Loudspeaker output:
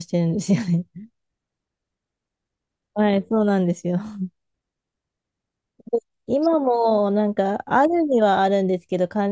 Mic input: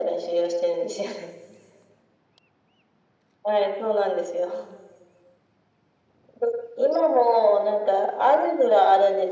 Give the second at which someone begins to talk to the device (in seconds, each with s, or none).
none